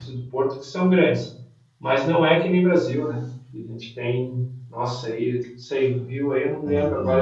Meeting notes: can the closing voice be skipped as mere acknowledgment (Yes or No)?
Yes